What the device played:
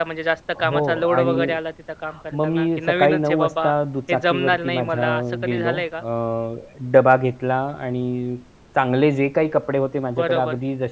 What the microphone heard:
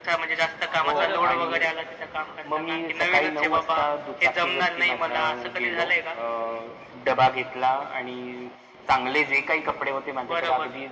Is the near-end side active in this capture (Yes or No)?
Yes